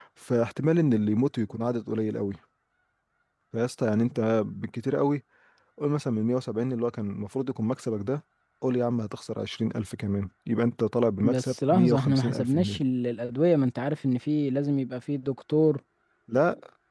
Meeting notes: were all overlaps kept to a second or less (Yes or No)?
No